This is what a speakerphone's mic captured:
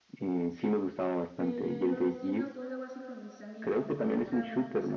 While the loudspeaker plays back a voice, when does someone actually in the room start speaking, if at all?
1 s

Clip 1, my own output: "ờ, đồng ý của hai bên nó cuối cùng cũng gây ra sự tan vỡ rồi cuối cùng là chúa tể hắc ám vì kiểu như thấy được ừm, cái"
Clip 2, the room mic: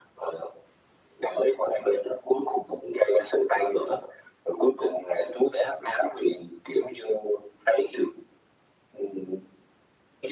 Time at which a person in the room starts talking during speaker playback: none

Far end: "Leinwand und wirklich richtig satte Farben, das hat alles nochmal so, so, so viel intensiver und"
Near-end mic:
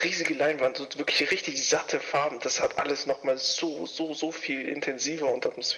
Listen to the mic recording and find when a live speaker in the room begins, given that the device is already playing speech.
none

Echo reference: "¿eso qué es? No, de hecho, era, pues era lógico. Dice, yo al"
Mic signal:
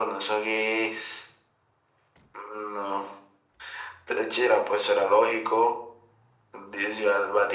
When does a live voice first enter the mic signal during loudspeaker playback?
none

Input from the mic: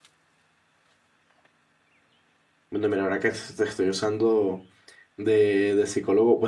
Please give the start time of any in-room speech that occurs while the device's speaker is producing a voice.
3 s

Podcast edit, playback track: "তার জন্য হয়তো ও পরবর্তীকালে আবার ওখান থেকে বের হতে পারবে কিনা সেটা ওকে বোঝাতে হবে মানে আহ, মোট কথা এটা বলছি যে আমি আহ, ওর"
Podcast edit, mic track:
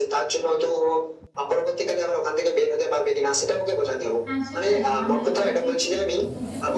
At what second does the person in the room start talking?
4 s

